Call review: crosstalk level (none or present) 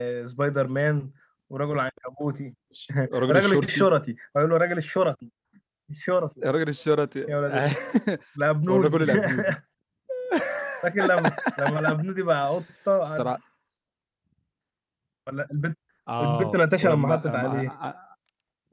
present